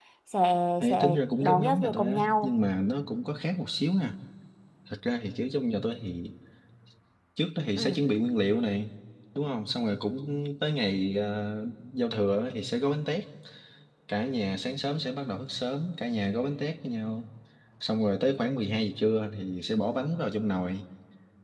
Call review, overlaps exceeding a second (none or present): present